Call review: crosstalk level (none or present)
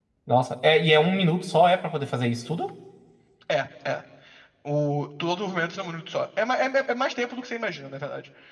none